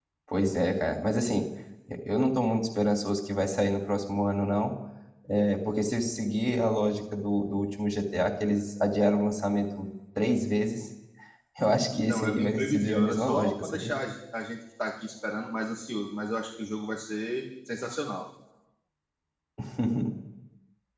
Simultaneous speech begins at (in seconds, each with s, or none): 11.9 s